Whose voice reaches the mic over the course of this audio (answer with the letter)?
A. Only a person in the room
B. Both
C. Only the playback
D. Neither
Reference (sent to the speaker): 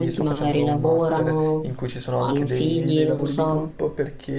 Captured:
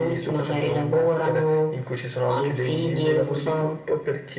C